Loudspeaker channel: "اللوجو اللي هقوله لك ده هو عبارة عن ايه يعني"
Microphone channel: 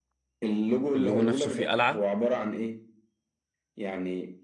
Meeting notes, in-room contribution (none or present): present